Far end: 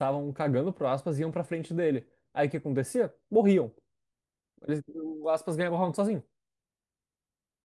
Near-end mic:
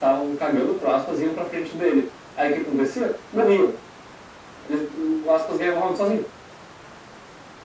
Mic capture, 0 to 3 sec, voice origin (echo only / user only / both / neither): echo only